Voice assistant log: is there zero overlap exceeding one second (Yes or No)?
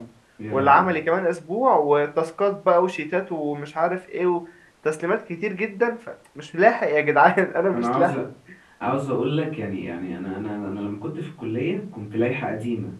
Yes